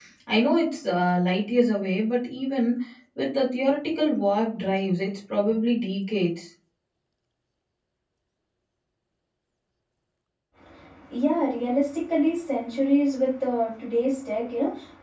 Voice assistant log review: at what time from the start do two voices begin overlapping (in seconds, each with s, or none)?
none